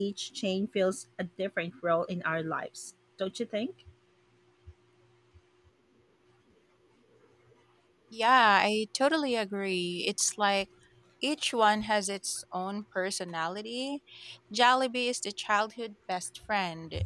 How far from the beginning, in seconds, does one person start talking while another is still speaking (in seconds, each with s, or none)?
none